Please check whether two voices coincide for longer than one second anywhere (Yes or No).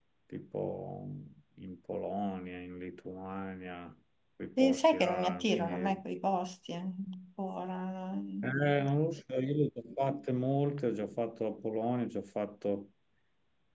Yes